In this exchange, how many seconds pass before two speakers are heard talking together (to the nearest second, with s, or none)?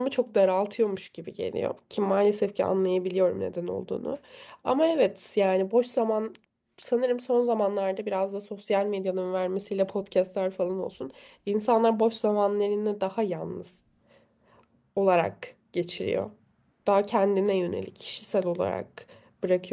none